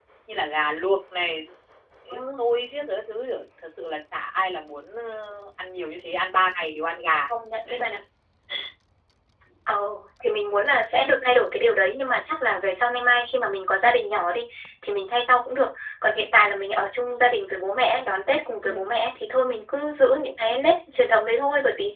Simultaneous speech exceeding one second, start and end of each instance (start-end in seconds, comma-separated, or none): none